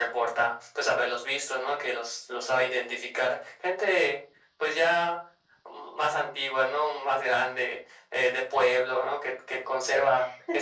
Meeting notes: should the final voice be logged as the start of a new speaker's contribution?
No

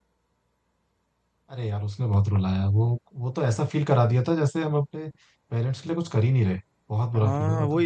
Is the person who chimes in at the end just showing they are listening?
No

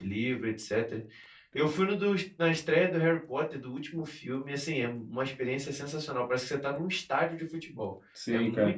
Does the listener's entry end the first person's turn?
Yes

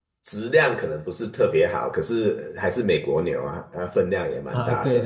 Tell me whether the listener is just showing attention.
No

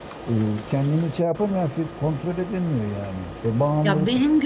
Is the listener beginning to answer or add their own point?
Yes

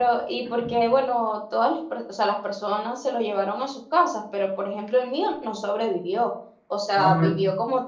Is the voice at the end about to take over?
No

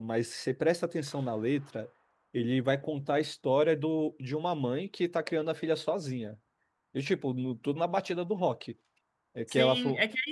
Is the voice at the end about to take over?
Yes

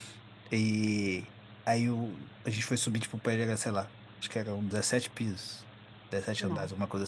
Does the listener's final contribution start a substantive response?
No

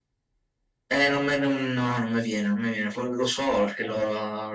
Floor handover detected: No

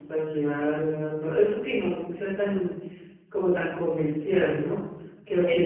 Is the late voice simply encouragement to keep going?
No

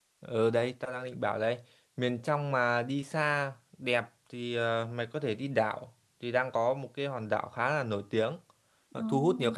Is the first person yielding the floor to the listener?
No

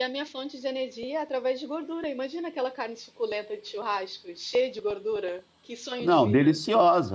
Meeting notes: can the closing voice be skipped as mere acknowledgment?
No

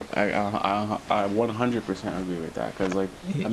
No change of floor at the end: Yes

